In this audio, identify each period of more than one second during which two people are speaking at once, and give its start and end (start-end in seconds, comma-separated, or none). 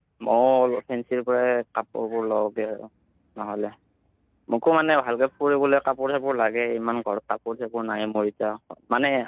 none